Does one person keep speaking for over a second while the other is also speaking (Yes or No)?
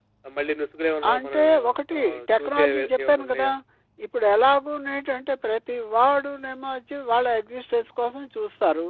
Yes